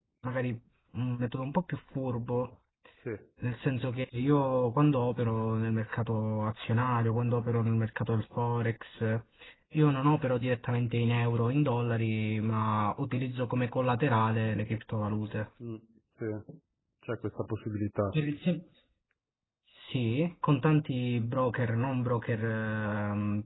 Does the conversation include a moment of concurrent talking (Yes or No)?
No